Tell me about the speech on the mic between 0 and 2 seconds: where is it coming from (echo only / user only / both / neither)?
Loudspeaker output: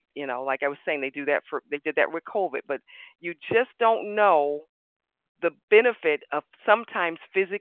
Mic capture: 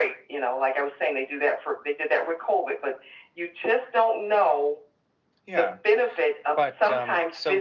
echo only